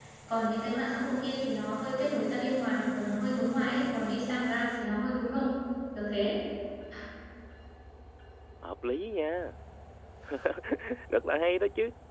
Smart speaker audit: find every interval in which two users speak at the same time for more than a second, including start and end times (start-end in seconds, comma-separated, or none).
none